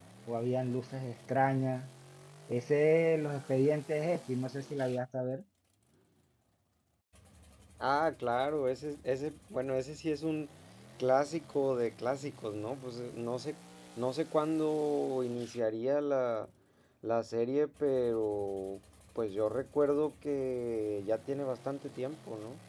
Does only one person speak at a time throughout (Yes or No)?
Yes